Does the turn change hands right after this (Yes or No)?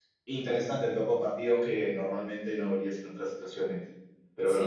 Yes